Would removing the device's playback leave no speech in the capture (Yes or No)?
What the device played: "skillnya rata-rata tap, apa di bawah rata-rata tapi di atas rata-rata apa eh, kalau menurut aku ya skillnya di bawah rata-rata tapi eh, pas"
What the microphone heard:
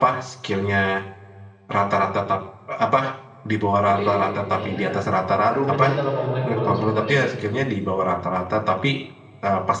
No